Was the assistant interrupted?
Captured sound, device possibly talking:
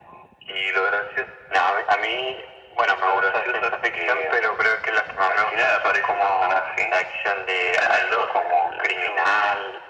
No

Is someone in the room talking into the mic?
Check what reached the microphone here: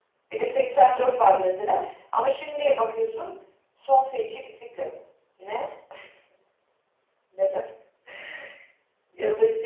Yes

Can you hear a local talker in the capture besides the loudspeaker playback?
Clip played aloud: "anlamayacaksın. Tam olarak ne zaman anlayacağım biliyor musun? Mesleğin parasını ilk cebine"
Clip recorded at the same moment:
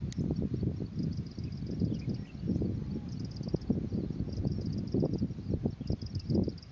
No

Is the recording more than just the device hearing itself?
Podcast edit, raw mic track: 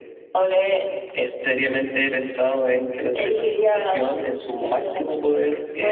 No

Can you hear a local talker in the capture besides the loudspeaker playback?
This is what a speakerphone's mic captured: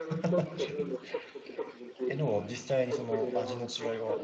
Yes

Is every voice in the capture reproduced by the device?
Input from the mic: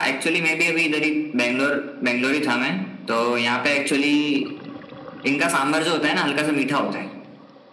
Yes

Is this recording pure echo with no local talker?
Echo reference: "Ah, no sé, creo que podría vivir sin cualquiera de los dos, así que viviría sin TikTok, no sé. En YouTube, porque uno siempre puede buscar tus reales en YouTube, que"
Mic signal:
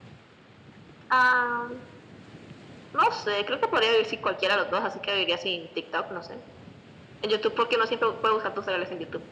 Yes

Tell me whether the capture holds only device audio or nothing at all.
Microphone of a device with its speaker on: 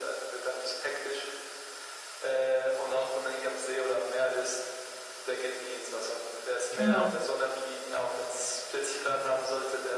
No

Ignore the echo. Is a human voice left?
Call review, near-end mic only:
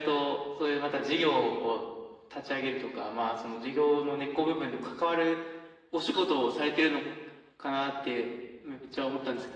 No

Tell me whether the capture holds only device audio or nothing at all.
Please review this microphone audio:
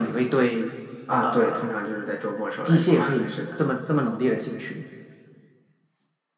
Yes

